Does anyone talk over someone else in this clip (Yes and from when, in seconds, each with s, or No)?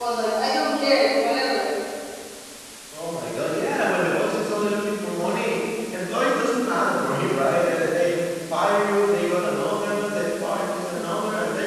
No